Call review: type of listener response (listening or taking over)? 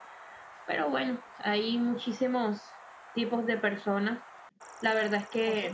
listening